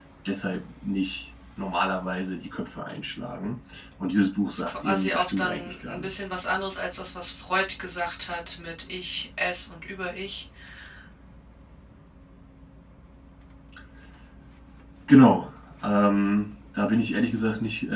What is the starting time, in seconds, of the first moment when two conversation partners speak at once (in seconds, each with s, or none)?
4.7 s